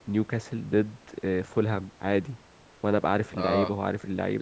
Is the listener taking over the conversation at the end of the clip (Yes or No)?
Yes